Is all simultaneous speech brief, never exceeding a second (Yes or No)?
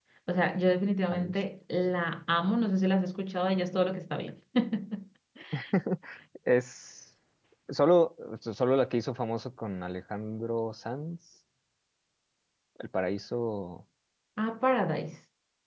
Yes